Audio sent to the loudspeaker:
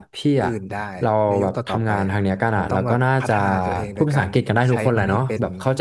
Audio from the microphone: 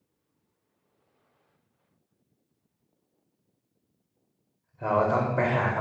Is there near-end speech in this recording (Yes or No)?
Yes